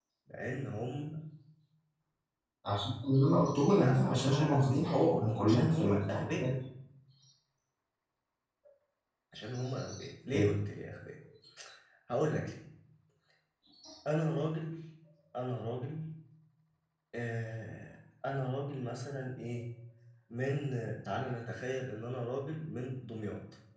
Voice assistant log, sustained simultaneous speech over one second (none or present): present